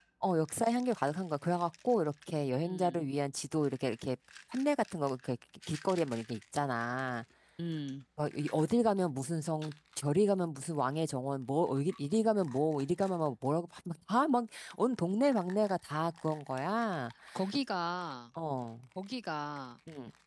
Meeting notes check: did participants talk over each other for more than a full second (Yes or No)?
No